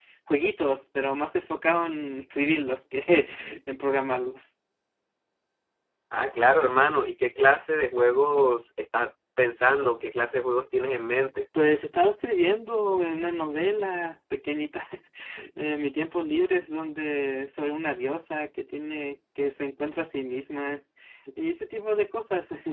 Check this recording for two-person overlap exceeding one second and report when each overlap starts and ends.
none

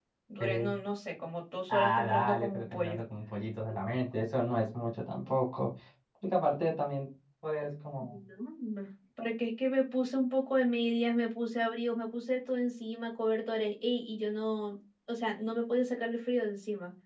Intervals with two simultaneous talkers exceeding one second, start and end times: 1.7-3.0

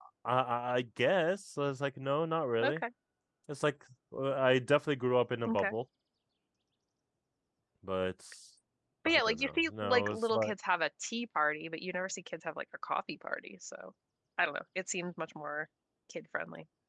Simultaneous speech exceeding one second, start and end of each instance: 9.0-10.5

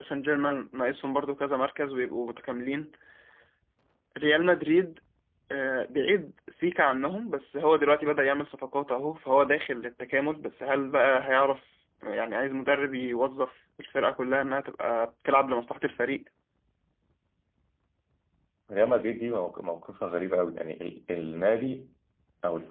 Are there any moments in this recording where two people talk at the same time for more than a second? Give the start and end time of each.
none

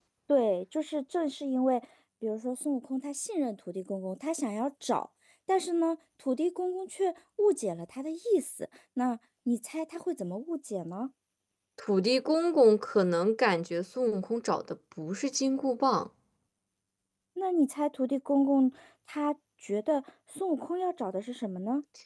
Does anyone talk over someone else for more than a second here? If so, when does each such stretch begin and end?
none

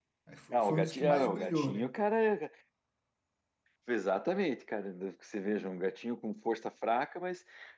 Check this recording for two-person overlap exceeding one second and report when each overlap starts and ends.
0.5-1.9

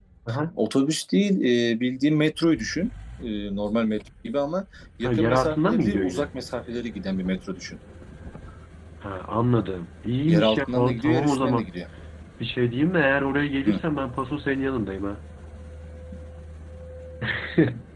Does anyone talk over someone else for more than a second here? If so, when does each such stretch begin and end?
5.0-6.3, 10.3-11.6

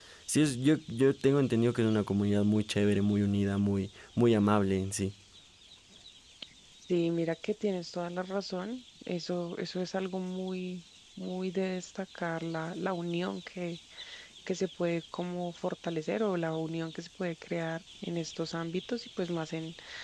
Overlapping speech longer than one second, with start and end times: none

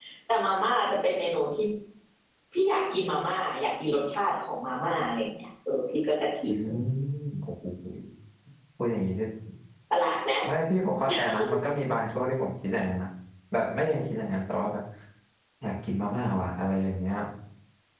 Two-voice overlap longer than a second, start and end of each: none

